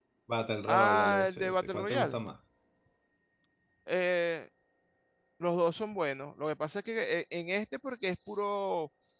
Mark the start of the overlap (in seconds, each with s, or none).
0.7 s